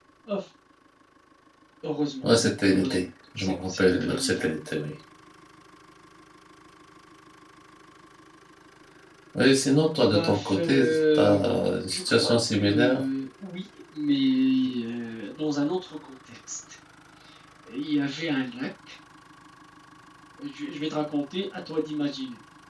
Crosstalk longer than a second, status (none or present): present